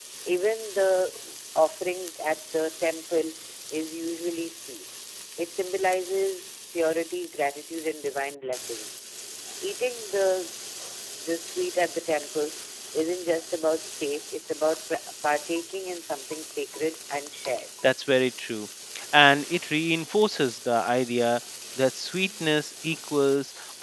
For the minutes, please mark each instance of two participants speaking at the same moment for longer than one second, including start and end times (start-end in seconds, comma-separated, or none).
none